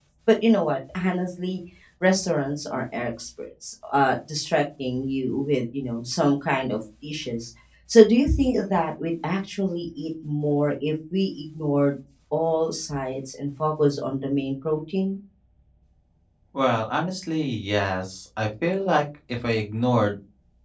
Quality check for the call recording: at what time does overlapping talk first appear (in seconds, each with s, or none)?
none